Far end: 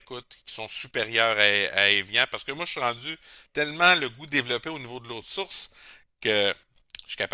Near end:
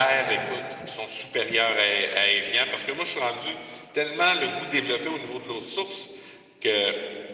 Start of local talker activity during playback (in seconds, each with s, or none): none